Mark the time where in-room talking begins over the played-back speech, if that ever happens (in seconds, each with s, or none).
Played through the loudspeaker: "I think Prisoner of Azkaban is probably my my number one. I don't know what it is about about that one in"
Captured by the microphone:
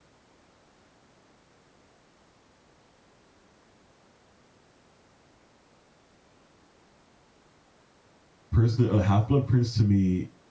8.5 s